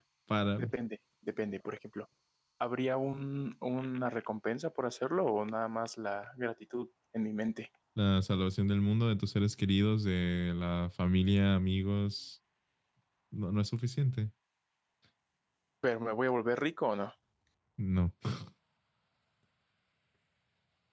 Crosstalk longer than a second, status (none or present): none